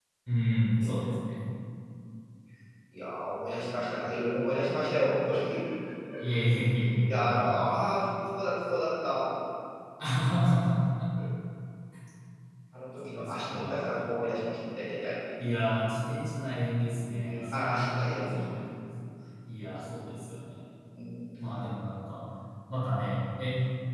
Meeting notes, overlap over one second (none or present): present